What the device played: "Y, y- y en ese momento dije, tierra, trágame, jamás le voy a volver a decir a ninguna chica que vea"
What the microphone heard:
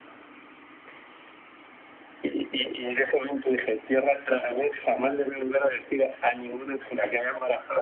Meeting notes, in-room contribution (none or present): none